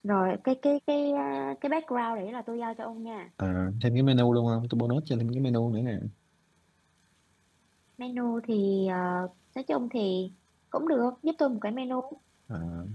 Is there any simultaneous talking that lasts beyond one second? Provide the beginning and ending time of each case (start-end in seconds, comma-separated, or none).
none